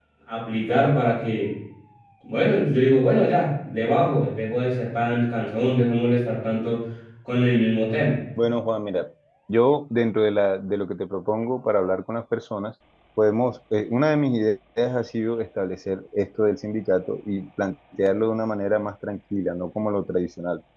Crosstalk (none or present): none